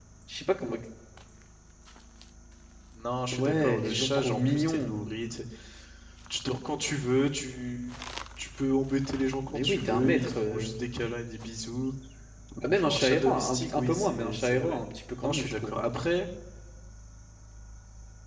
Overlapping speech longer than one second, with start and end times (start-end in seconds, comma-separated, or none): 3.3-5.0, 9.4-10.7, 12.8-14.8